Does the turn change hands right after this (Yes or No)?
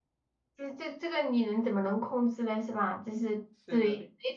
No